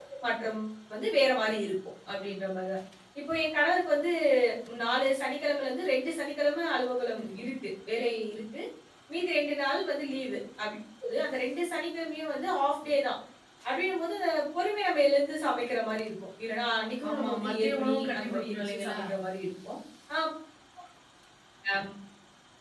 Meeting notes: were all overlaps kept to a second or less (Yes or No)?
No